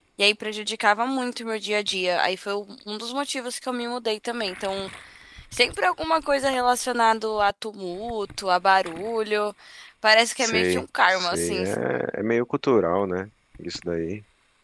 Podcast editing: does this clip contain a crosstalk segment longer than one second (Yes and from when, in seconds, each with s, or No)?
Yes, from 10.4 s